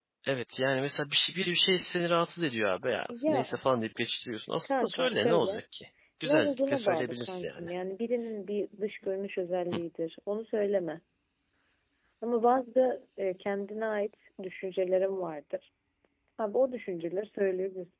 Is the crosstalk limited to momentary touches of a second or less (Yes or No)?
No